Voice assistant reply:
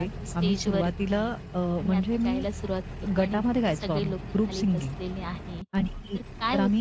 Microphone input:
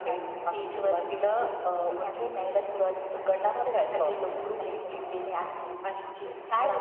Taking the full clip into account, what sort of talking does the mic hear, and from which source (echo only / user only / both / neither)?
echo only